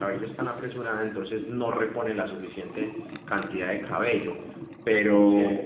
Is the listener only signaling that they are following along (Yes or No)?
Yes